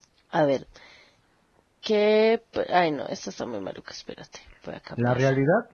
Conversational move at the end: taking over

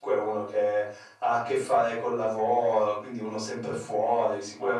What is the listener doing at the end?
listening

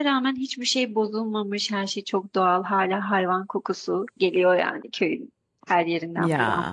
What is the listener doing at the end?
listening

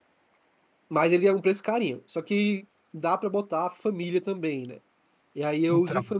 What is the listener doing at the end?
listening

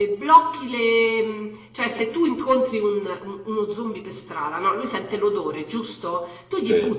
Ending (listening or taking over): listening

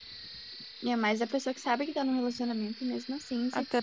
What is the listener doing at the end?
taking over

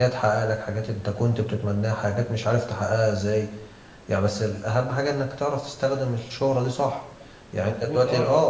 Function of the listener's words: taking over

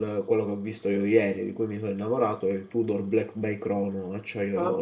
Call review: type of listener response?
taking over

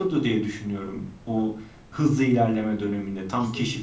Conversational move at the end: listening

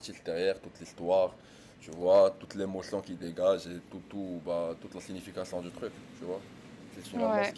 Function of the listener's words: listening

